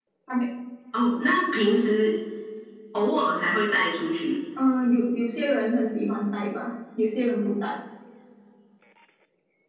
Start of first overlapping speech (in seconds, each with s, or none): none